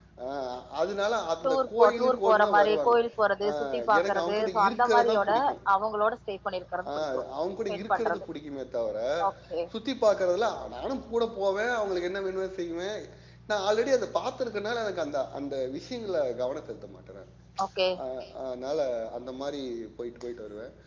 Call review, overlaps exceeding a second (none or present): present